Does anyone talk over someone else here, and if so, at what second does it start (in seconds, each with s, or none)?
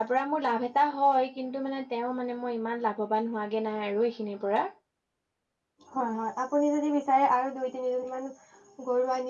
none